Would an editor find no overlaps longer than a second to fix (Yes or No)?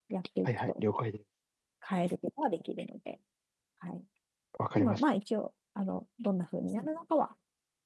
Yes